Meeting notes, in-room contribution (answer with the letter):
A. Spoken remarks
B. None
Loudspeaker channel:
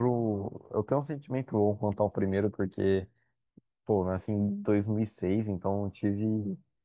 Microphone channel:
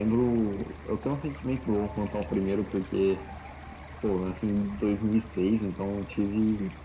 B